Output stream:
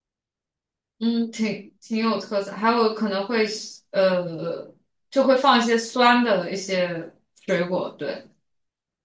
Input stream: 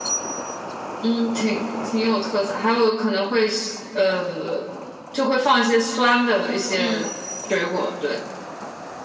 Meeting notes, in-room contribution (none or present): present